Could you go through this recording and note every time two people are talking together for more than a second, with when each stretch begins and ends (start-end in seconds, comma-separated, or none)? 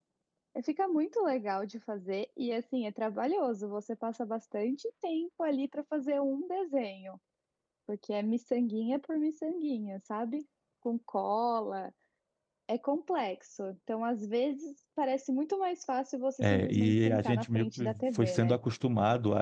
16.4-18.6